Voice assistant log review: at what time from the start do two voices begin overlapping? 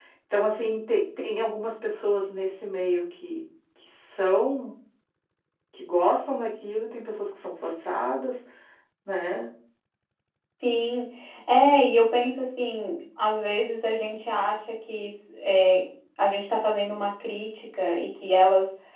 none

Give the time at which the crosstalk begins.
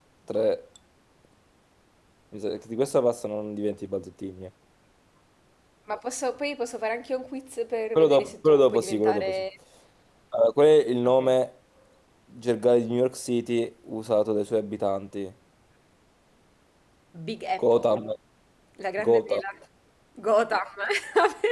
8.0 s

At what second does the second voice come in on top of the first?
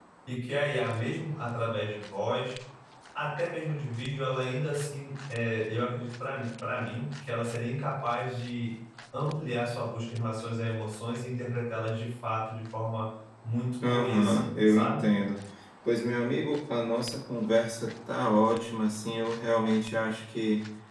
13.8 s

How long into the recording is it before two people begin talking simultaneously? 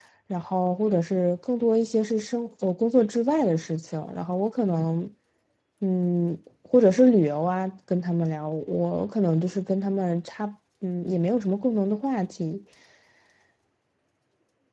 none

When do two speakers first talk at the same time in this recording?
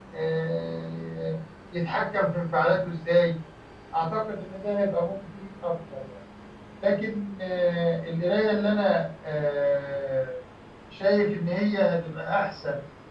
none

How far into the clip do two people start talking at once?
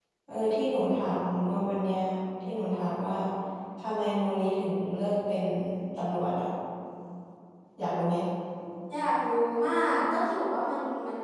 none

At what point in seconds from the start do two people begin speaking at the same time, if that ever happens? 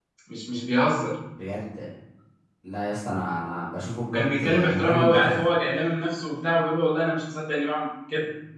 4.1 s

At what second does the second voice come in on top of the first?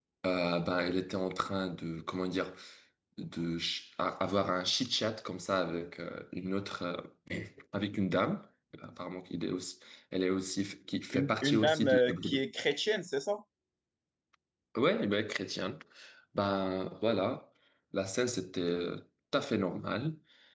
11.1 s

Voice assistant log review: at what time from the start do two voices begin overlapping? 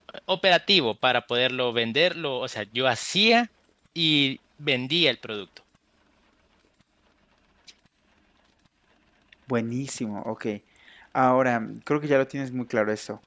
none

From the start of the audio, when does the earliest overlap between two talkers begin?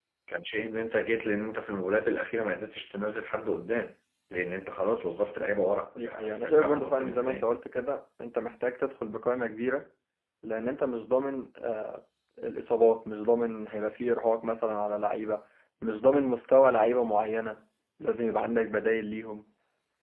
6.0 s

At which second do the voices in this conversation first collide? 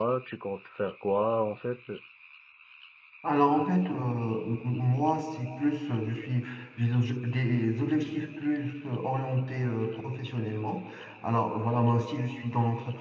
none

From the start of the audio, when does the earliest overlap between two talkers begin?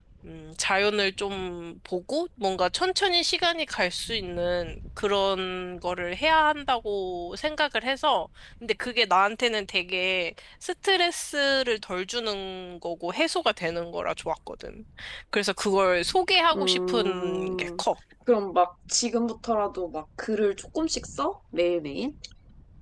16.5 s

